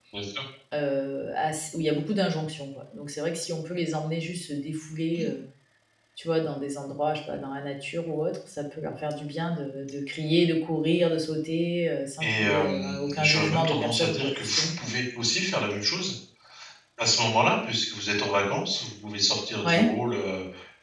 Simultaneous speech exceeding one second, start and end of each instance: 12.2-14.7

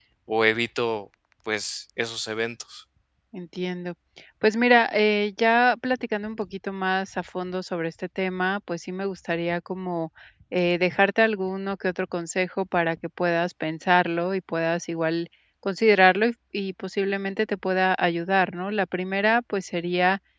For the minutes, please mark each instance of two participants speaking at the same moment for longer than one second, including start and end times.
none

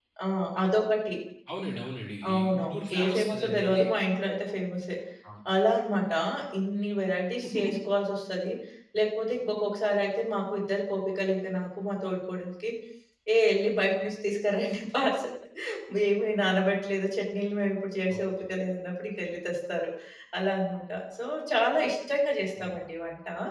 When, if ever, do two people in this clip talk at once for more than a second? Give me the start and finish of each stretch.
2.3-3.8

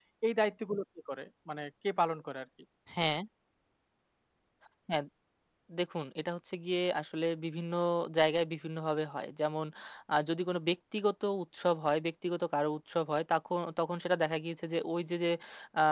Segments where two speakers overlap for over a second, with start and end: none

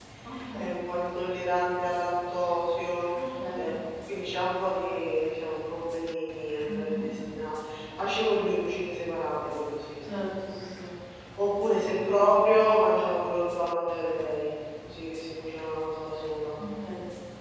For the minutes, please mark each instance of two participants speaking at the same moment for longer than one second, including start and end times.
none

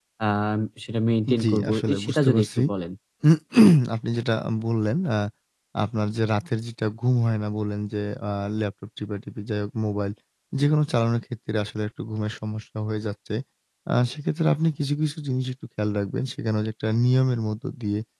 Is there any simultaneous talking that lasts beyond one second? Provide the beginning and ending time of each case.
1.4-2.6

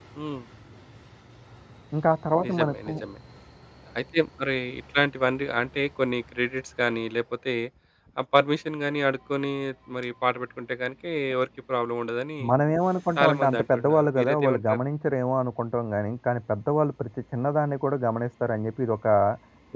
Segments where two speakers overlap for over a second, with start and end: 13.2-14.8

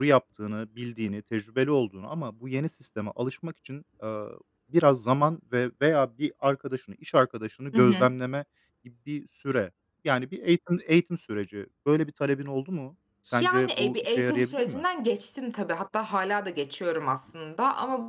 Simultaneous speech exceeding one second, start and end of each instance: 13.4-14.8

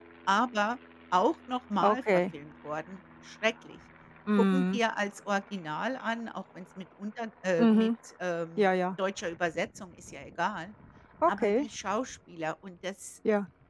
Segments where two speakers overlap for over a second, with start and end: none

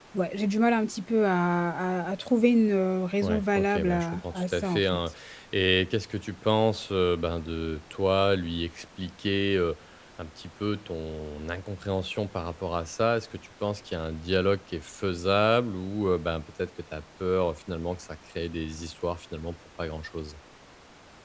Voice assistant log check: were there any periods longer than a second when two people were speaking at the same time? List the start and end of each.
3.2-5.0

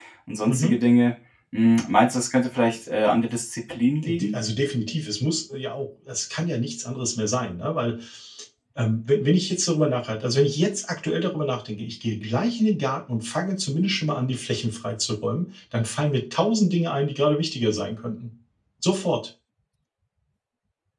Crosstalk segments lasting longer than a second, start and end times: none

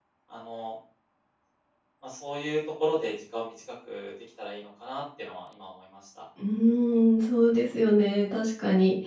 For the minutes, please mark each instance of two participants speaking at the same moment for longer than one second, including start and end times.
none

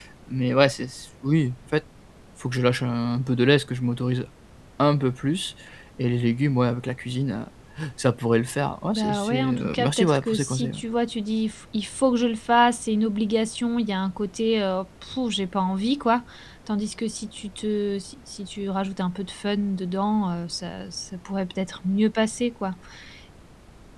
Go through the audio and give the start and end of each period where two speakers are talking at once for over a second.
8.9-10.8

